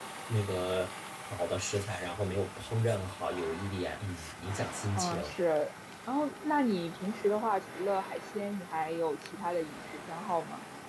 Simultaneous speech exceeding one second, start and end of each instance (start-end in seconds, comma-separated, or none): none